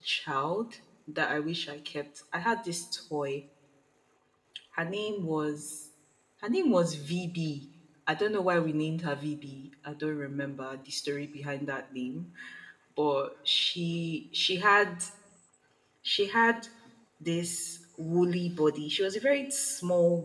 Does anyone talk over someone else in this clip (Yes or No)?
No